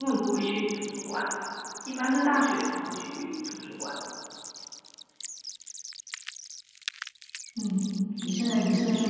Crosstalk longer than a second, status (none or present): none